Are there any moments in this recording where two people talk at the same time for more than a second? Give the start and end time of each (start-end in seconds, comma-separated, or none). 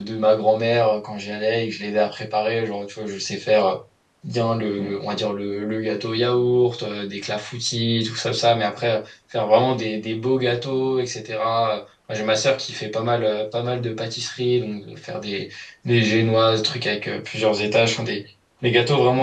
none